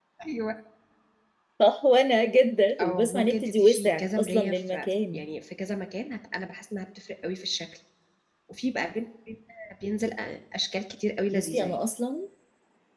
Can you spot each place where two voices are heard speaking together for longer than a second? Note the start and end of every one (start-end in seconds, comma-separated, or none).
2.8-5.2